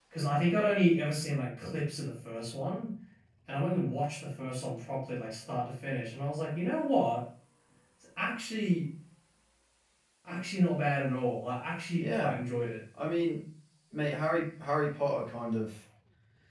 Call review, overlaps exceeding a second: none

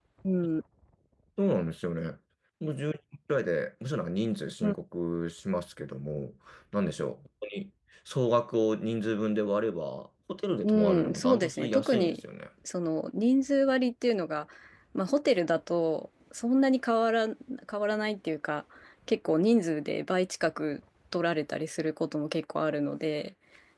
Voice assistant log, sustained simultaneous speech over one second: present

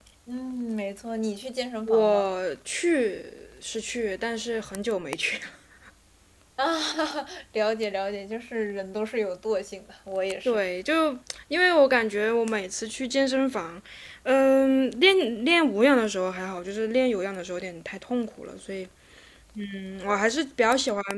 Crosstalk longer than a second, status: none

